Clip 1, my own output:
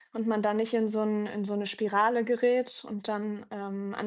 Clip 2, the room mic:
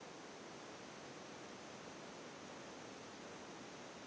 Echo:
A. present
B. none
B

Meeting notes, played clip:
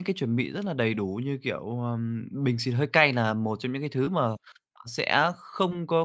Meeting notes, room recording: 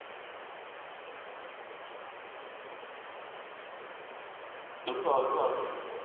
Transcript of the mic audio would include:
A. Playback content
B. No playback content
B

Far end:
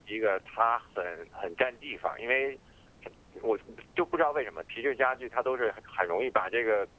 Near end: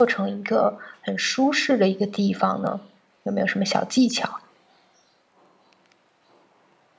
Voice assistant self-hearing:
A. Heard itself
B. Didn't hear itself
B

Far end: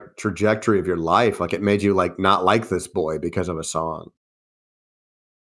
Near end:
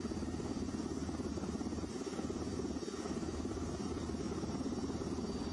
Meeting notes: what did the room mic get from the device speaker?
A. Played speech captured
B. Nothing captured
B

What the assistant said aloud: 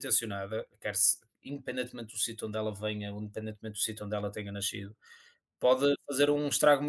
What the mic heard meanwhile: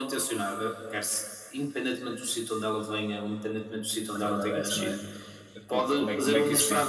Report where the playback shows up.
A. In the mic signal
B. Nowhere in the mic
A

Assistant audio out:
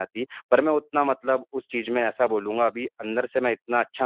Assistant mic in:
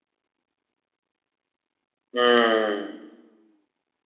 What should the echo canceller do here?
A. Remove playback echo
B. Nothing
B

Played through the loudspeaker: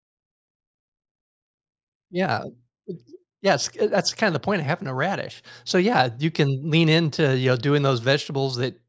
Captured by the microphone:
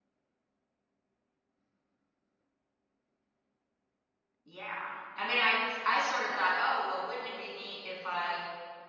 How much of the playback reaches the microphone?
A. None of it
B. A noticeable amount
A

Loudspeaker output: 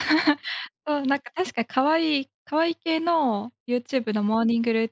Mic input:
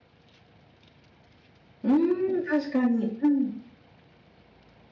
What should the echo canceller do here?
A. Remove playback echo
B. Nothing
B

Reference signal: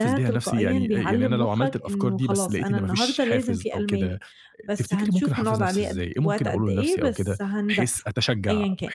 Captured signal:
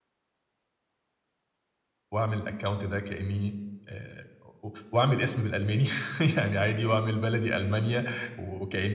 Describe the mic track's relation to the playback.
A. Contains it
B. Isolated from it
B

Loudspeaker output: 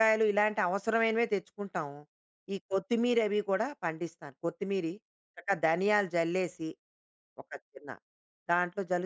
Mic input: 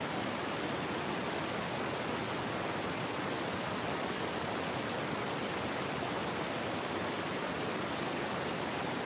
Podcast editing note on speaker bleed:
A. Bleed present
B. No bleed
B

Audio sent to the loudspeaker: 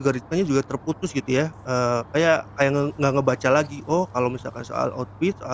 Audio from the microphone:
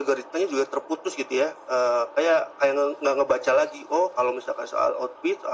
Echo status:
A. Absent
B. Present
B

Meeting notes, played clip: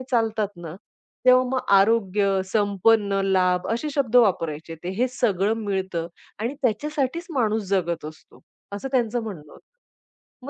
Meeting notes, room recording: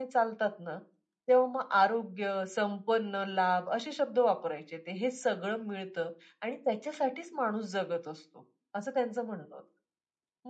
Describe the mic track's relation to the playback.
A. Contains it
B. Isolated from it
A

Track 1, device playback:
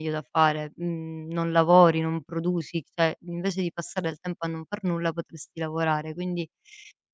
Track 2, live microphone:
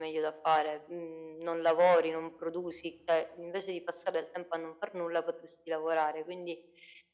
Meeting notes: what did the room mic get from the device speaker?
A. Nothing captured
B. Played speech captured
B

